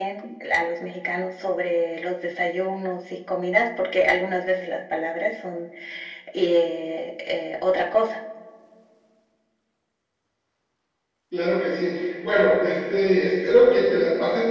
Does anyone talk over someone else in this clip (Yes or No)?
No